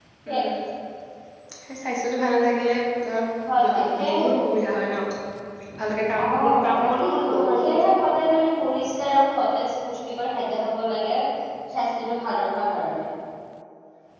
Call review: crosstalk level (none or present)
present